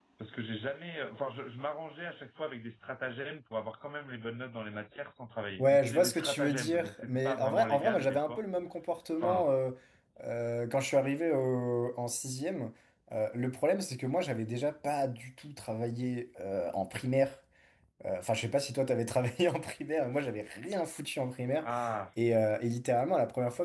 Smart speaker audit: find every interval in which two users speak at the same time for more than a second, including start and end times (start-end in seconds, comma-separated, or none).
5.6-8.4